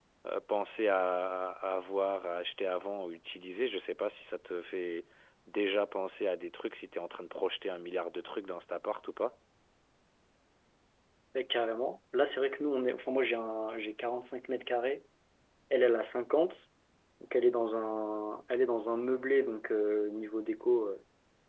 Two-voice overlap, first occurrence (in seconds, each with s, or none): none